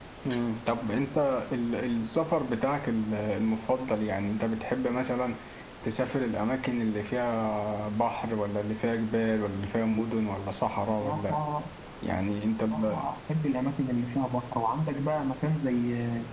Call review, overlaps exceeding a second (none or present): none